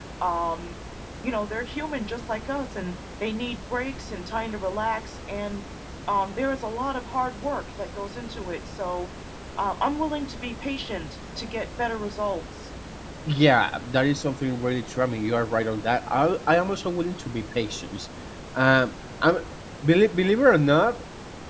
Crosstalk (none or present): none